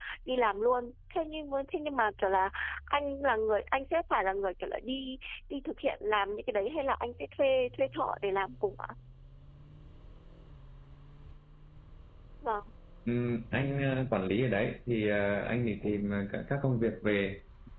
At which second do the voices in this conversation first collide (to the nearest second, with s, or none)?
none